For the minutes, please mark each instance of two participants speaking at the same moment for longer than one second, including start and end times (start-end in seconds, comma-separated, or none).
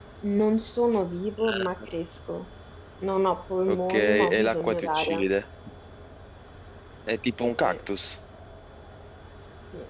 3.7-5.2